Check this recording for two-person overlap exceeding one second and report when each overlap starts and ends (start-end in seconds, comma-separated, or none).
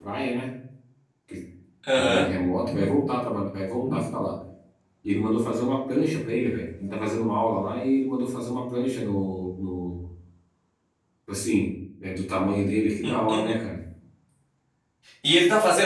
none